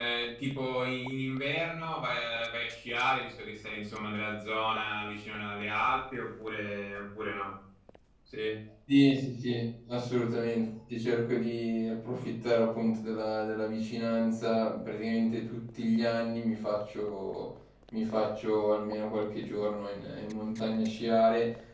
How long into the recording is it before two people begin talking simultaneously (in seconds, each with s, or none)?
none